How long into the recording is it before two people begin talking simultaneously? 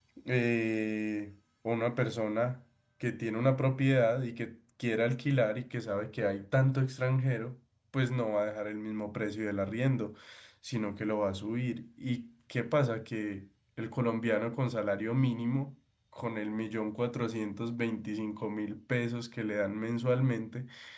none

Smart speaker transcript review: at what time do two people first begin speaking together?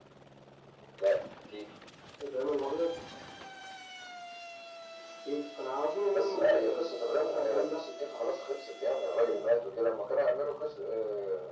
6 s

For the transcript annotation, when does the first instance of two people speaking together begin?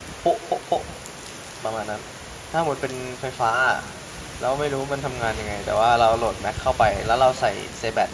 none

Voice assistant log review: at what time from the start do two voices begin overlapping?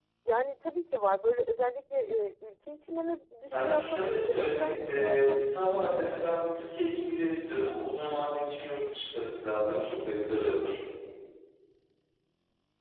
3 s

